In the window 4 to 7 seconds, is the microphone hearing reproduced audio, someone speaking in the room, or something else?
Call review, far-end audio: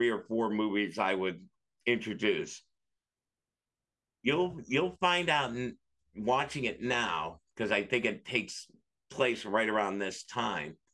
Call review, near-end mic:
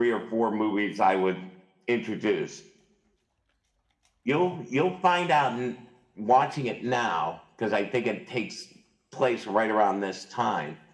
echo only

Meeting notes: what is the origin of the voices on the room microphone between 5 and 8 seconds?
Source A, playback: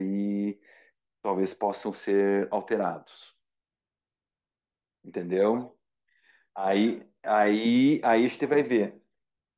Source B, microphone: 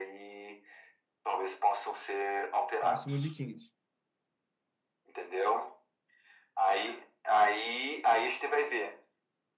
echo only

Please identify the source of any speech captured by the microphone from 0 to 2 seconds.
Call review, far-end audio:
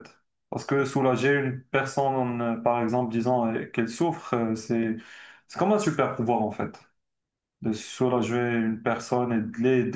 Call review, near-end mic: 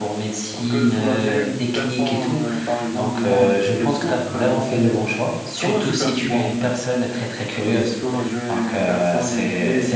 both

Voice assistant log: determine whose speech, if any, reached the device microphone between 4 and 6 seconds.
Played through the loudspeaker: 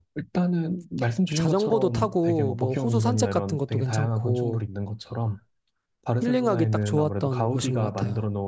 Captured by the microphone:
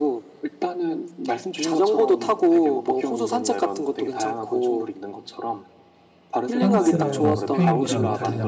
echo only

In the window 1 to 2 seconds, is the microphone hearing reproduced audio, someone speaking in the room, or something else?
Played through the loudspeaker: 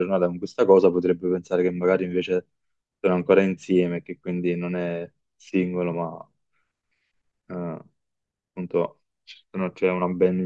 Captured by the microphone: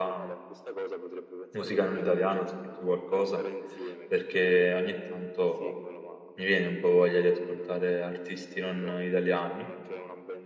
both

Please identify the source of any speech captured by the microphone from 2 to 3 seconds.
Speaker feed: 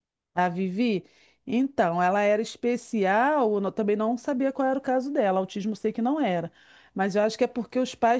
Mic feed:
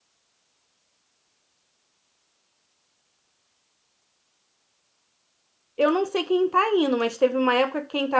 neither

